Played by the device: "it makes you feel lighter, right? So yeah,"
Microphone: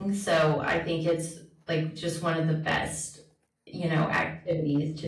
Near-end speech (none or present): present